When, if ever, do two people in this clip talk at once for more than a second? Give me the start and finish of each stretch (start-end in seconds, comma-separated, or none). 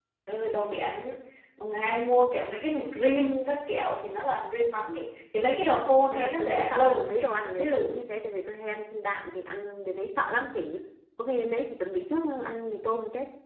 5.8-7.9